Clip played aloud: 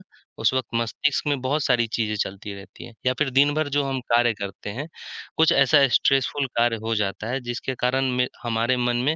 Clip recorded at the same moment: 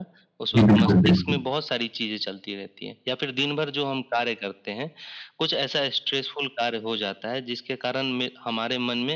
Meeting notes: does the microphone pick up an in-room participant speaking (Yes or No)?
Yes